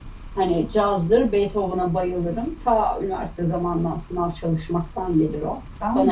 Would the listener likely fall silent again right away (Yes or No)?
No